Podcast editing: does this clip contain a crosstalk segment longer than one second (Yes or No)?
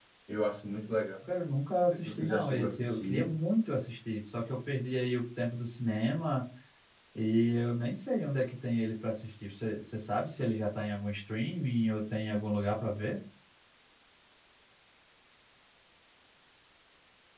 Yes